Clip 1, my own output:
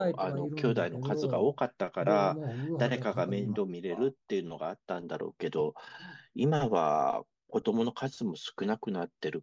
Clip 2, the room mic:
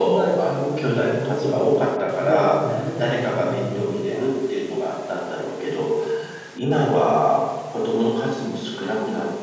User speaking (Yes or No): No